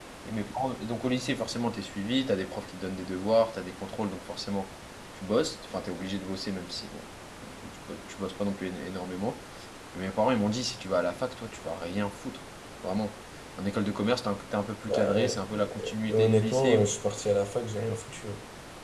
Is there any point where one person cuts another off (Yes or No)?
Yes